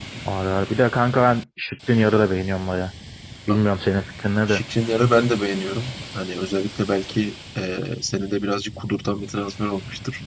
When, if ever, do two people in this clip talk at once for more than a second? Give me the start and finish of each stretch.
none

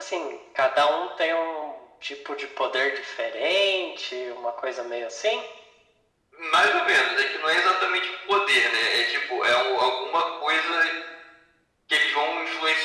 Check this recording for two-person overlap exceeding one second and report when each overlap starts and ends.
none

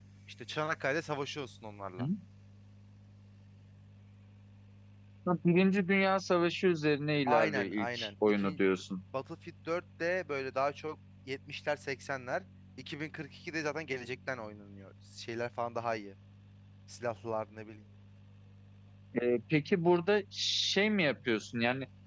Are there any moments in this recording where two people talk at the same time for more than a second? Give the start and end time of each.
7.3-8.6

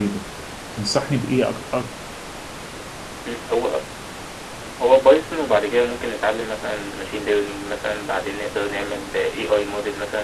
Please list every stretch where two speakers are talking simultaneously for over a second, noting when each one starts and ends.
none

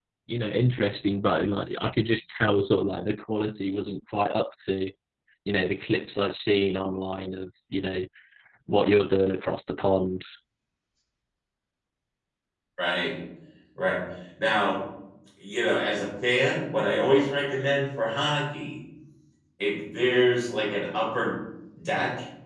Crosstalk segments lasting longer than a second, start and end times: none

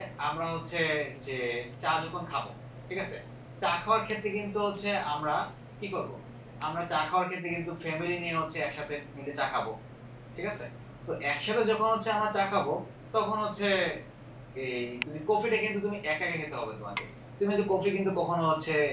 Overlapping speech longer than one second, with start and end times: none

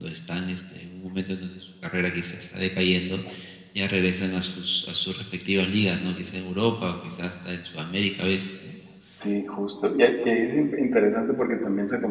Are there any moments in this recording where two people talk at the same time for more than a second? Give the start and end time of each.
none

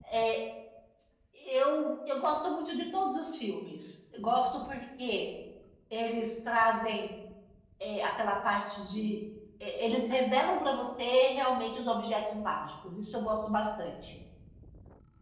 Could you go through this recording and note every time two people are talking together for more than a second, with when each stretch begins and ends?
none

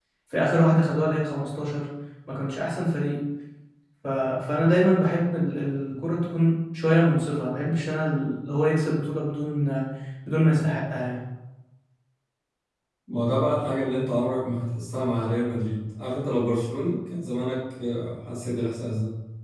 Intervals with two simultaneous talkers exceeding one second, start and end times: none

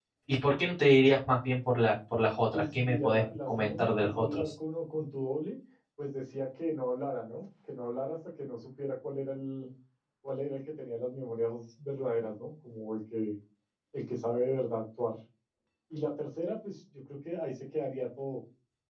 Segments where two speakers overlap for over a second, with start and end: 2.5-4.5

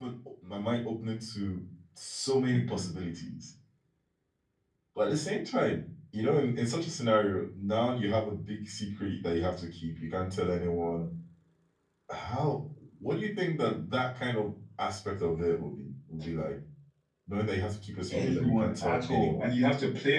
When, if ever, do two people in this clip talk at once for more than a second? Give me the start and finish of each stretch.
18.1-19.5

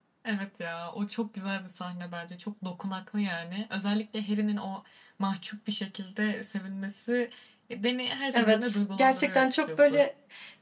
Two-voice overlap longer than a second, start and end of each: 8.3-10.1

